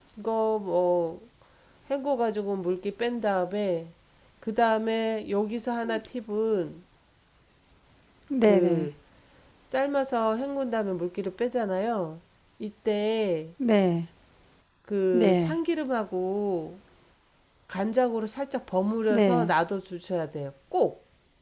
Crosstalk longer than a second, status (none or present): none